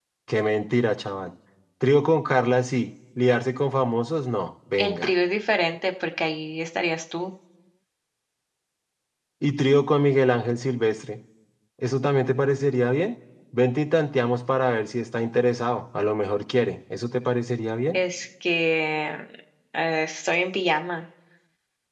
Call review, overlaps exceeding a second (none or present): none